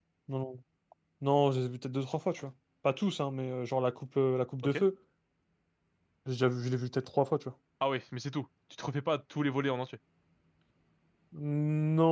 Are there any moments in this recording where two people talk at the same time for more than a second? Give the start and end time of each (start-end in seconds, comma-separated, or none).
none